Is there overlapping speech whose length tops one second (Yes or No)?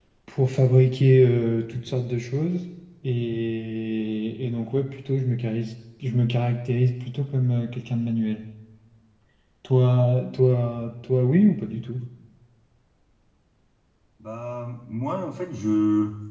No